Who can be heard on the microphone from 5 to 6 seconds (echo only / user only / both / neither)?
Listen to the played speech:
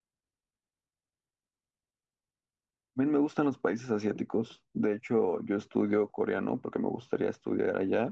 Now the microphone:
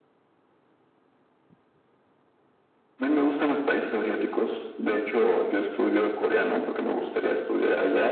echo only